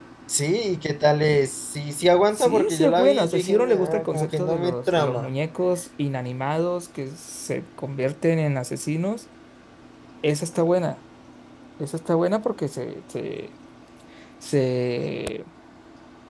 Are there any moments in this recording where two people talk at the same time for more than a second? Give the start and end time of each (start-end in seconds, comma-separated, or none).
2.3-5.3